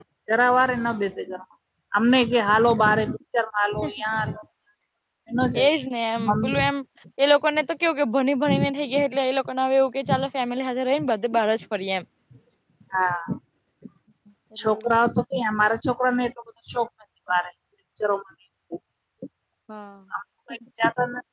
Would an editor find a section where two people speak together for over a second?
No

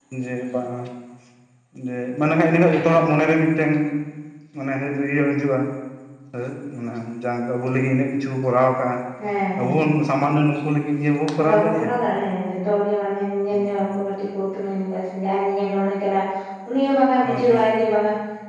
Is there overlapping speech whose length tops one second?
No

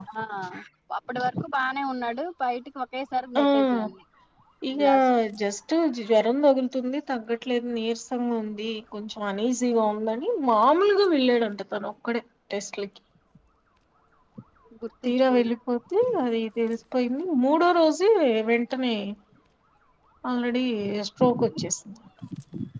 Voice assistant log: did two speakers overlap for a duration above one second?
No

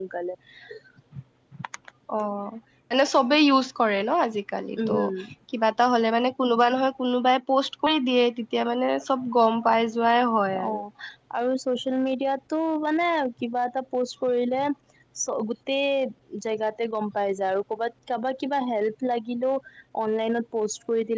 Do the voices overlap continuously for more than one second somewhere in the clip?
No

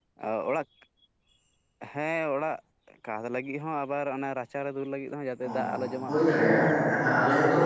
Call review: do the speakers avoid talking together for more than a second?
Yes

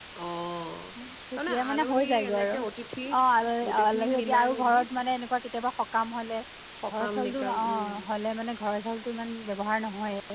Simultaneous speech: Yes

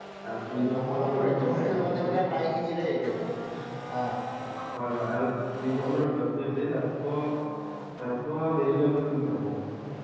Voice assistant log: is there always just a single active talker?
No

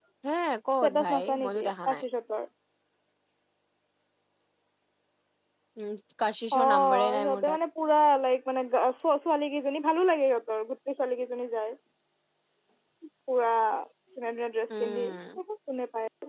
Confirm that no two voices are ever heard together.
No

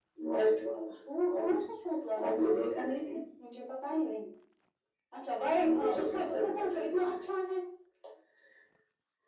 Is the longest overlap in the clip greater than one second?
Yes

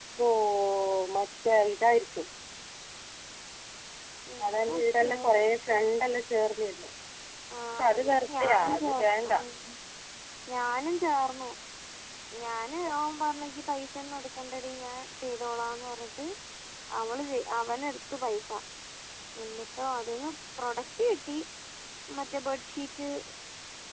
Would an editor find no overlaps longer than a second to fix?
No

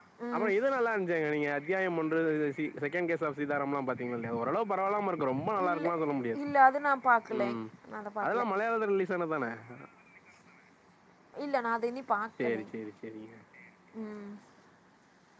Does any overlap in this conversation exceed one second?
No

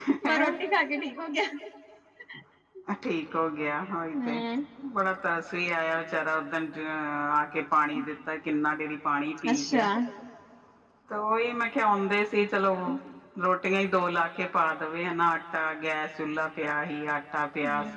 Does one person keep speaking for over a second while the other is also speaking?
No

